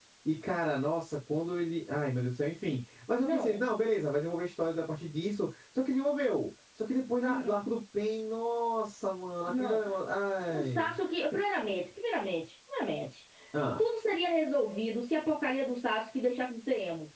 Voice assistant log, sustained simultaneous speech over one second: none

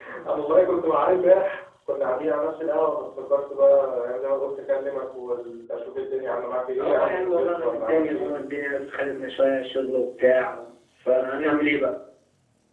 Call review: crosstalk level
present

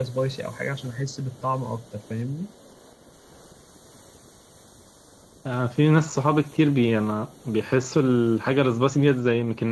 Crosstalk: none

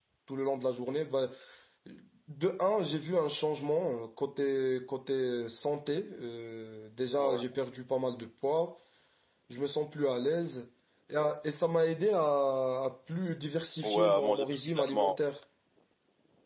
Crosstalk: present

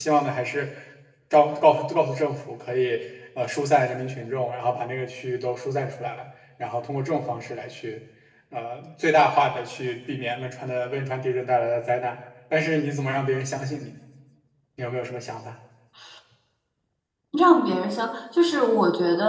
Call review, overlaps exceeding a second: none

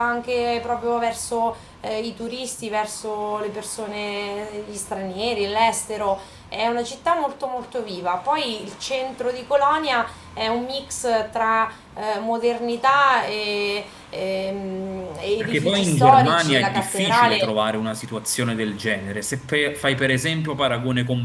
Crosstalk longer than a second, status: present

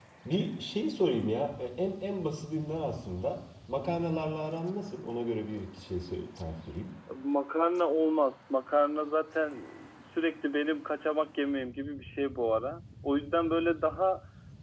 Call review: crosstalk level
none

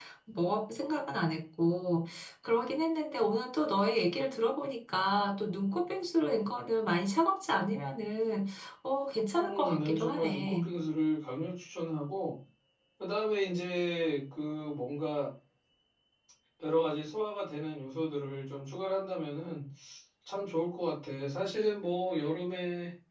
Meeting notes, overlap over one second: present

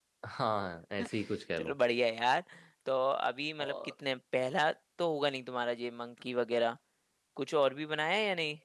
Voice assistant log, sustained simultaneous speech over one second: none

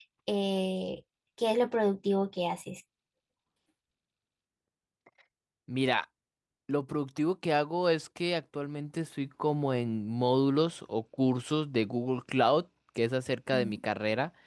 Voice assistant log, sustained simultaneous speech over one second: none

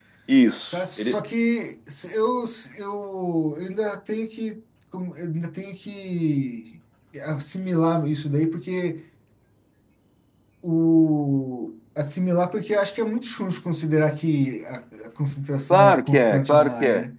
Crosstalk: present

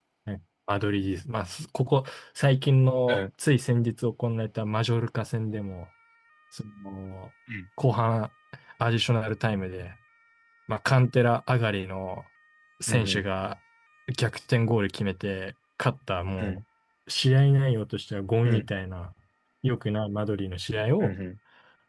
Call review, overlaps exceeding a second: none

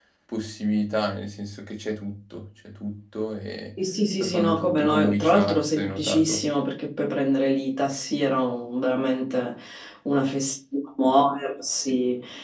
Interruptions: present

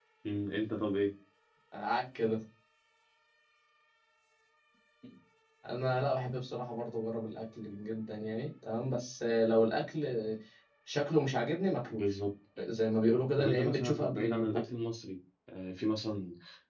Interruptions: present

